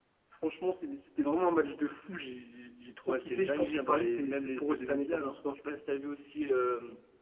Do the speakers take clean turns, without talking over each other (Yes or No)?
No